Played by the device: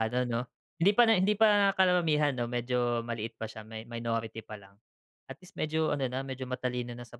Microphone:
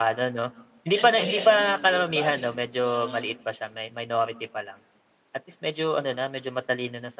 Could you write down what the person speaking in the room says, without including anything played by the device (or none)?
siyempre ayan yung vote buying na